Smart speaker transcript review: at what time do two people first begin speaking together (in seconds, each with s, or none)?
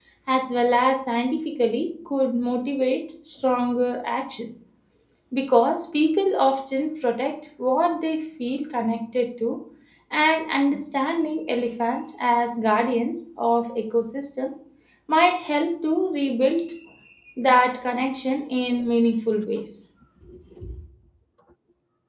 none